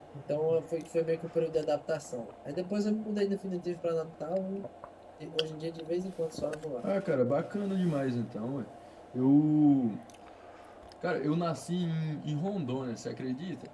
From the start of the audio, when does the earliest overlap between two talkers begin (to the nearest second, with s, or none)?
none